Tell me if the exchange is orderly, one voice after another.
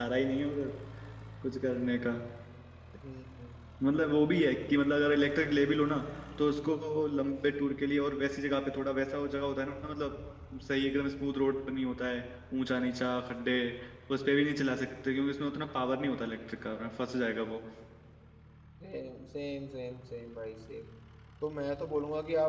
Yes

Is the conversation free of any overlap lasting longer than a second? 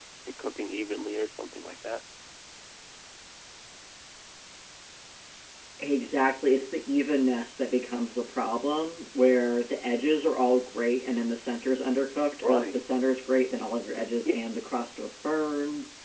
Yes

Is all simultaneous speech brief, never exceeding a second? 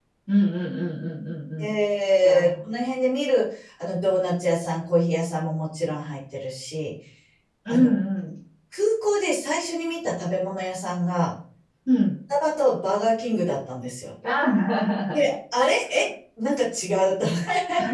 Yes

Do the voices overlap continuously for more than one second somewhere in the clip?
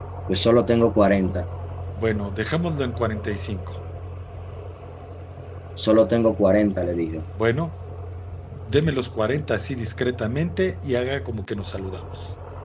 No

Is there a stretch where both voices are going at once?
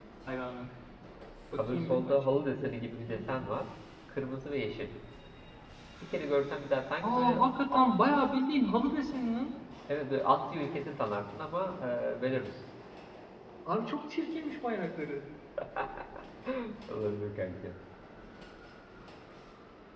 Yes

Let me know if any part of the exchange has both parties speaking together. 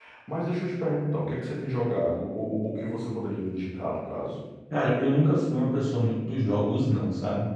No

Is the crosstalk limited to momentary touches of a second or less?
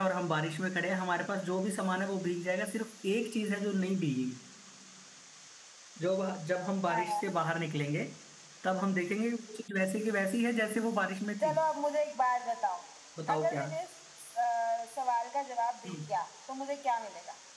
Yes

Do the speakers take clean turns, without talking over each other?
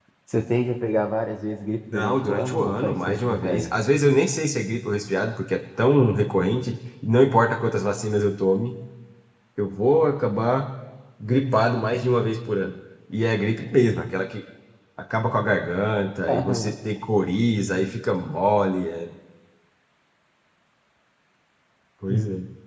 No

